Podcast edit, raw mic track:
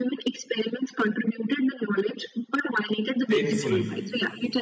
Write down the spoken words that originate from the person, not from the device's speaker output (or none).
painfully